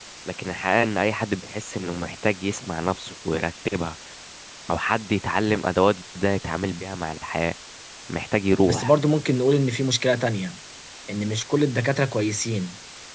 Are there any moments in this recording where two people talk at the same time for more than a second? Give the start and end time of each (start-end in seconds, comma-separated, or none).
none